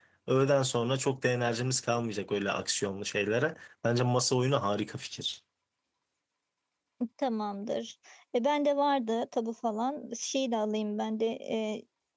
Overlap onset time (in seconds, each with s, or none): none